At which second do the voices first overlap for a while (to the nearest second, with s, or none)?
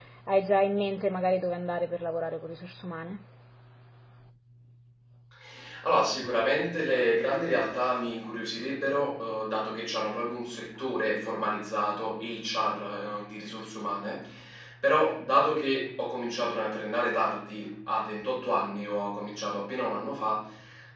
none